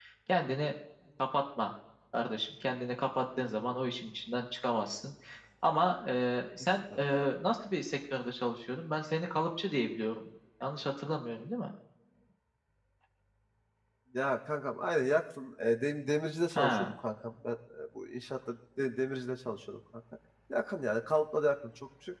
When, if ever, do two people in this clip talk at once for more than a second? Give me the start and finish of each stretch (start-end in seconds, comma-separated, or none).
none